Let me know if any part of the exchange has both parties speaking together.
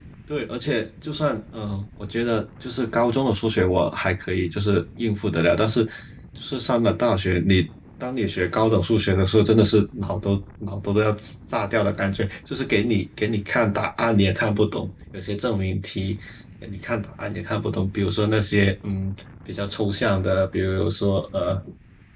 No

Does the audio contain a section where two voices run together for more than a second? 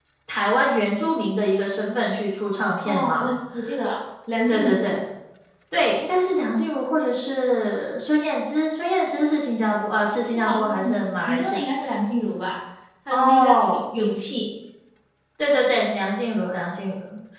Yes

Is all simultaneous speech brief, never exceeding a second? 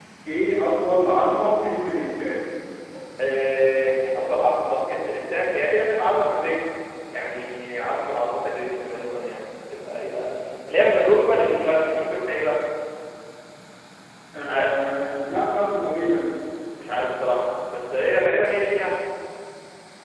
Yes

